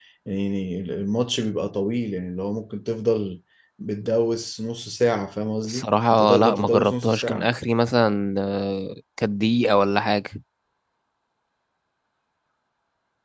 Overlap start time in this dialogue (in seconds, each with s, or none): 5.6 s